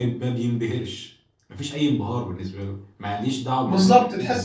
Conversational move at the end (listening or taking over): taking over